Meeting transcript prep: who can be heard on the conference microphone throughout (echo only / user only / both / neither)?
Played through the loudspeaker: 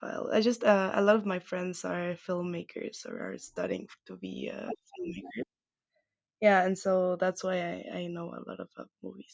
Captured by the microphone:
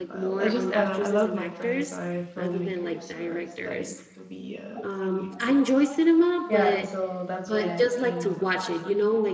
both